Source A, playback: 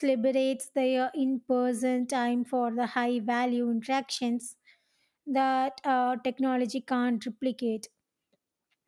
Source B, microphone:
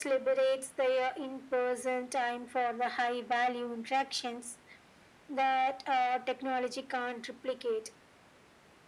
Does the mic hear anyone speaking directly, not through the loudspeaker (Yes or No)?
No